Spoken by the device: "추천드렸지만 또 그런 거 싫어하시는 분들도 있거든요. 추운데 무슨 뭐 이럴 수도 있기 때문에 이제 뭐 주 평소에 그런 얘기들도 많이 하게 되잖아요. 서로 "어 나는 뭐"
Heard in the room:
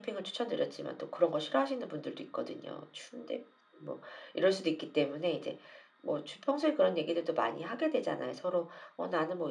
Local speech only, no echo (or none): none